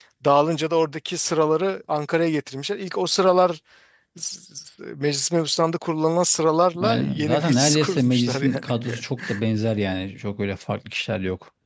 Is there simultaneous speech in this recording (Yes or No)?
Yes